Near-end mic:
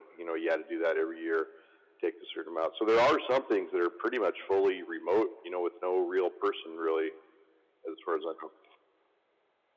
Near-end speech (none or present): none